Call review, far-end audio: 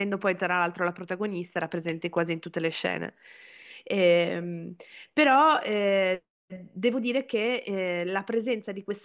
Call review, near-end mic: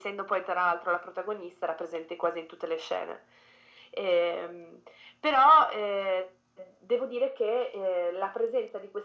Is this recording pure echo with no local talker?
Yes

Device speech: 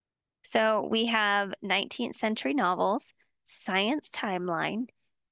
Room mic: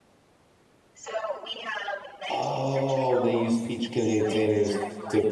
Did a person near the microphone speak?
Yes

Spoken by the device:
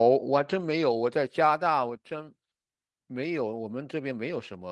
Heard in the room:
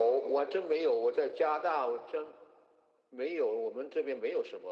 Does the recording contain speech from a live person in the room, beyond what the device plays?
No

